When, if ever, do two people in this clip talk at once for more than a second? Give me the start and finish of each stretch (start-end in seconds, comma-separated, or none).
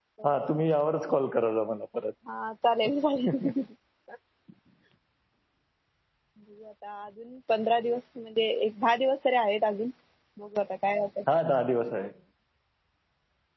none